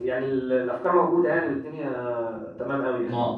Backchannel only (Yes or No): No